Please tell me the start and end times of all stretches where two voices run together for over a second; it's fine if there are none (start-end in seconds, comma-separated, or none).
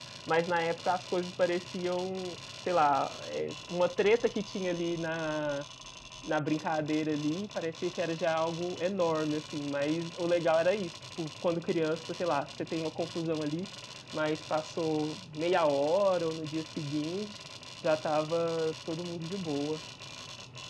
none